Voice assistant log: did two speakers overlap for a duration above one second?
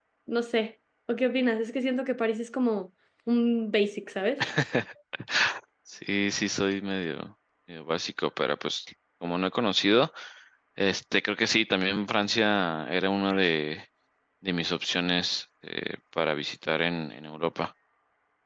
No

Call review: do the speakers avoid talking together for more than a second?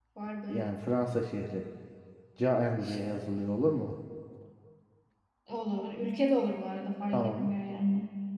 Yes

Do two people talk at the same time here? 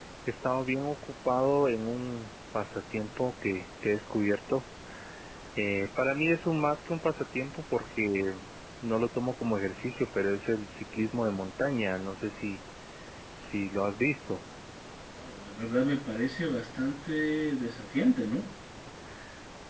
No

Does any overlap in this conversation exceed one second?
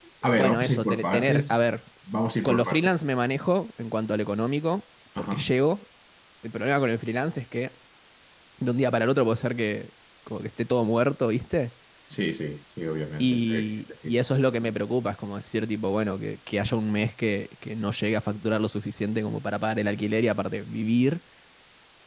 Yes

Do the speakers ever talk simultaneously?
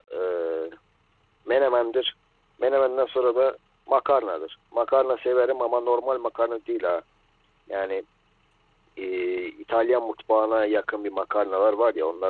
No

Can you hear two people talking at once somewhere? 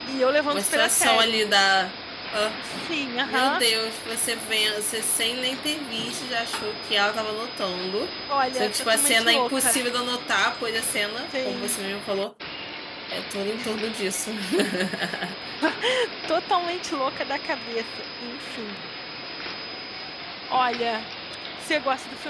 Yes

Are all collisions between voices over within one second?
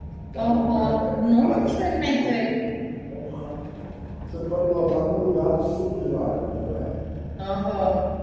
No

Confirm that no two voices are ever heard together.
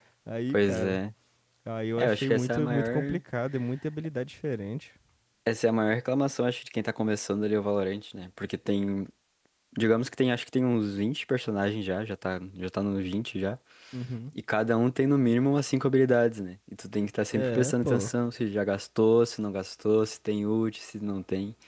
No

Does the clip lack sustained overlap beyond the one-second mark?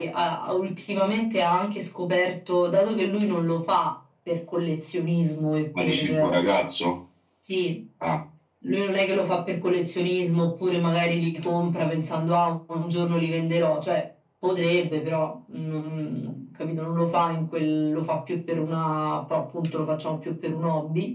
Yes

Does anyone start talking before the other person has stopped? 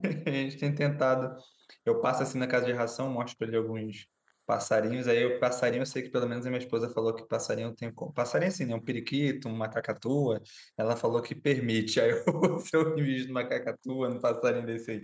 No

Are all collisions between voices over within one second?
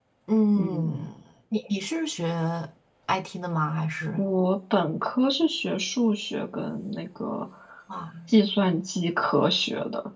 Yes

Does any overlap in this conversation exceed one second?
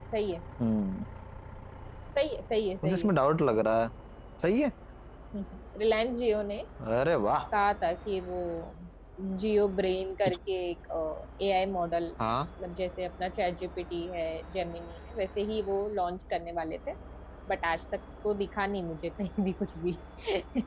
No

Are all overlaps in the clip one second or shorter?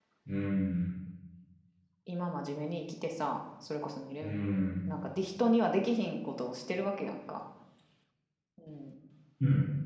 Yes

